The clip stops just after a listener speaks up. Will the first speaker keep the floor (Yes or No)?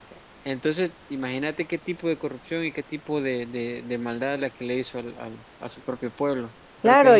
No